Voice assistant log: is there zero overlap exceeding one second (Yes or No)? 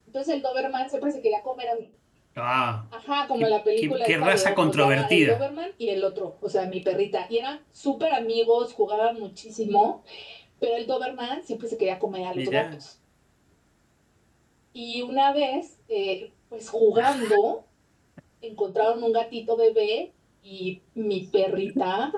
No